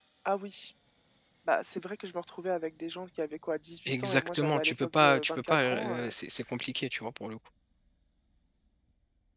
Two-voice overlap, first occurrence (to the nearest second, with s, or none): 4 s